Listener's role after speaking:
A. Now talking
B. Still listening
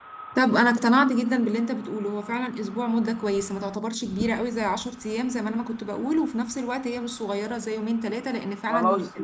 A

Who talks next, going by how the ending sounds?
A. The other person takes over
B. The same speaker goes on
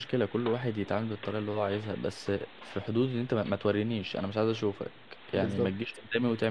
B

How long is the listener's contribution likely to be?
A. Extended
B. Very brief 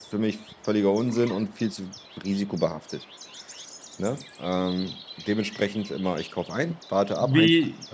A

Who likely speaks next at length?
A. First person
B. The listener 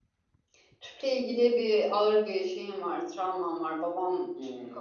A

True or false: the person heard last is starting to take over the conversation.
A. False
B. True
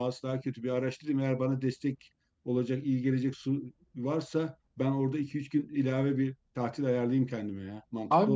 B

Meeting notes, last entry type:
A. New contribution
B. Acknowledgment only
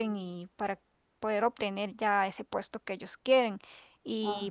B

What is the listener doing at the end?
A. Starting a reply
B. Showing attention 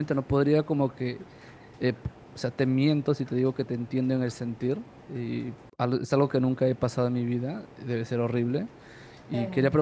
B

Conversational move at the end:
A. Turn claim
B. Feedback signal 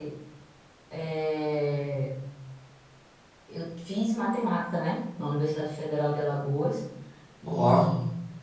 B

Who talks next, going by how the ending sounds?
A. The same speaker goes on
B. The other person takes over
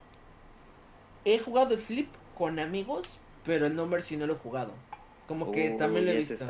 B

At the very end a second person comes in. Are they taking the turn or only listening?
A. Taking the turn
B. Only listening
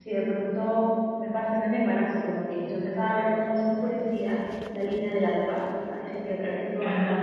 B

